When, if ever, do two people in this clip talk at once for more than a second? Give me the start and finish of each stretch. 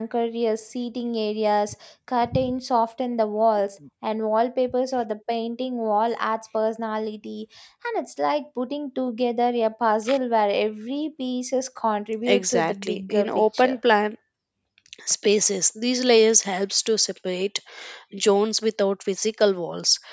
12.3-13.8

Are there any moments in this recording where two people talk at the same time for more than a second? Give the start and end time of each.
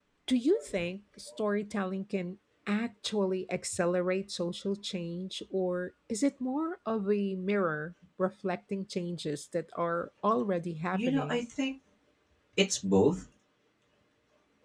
none

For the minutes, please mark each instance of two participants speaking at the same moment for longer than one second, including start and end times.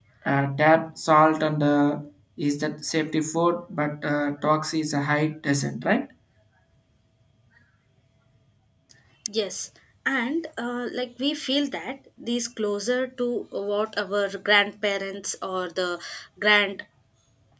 none

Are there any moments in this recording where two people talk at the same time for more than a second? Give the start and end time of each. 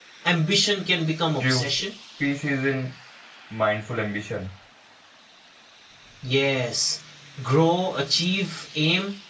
none

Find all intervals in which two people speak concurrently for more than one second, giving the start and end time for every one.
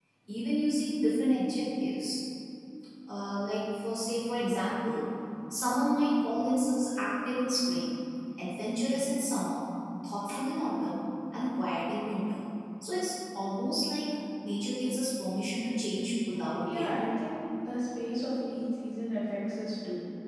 none

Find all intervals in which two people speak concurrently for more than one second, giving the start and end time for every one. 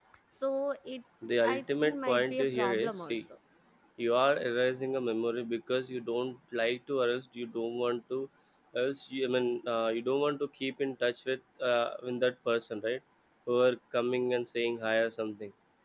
1.4-3.2

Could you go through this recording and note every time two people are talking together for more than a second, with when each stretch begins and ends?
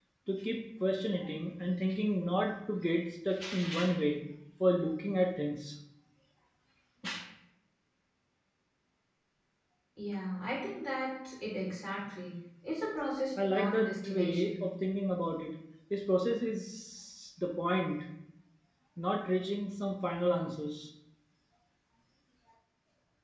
13.4-14.6

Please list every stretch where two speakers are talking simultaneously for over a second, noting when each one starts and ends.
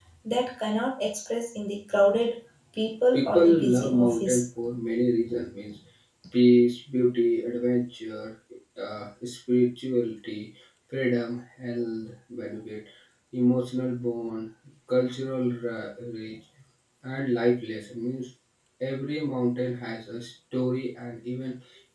3.1-4.4

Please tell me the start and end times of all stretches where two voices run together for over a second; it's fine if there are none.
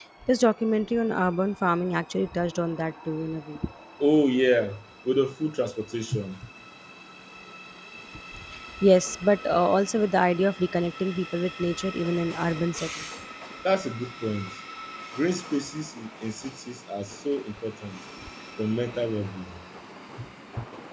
none

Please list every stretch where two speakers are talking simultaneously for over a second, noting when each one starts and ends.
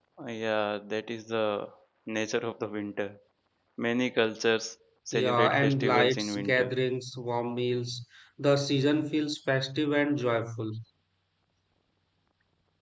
5.1-6.7

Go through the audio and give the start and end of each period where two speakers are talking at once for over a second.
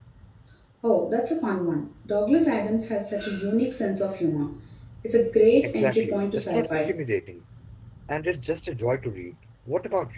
5.6-6.9

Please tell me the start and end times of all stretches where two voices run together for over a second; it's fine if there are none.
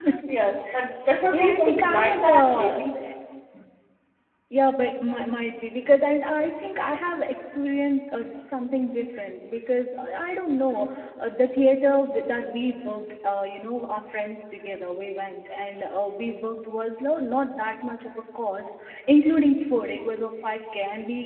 1.3-2.7

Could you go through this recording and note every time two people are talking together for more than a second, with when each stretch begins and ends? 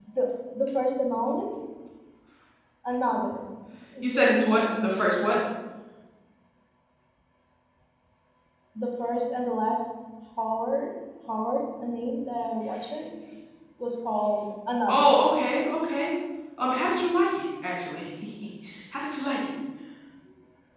4.0-5.2

